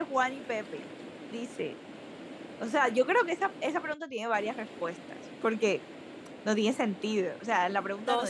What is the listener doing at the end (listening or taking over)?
taking over